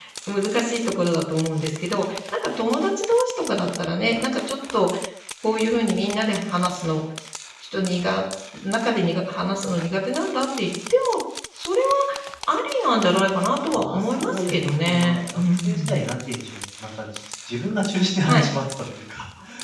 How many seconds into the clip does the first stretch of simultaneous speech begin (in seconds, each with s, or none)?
13.7 s